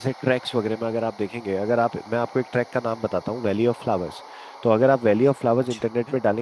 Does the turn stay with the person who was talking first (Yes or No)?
Yes